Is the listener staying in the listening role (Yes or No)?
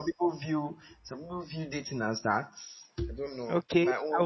No